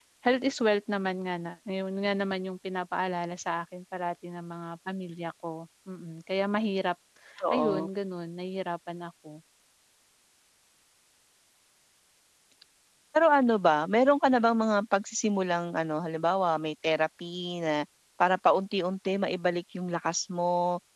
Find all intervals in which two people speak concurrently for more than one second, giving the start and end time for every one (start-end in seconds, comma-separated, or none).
none